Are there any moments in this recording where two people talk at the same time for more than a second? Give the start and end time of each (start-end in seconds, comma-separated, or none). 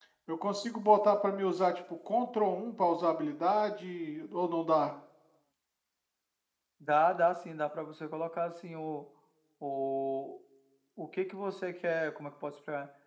none